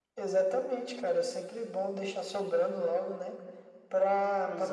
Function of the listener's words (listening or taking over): listening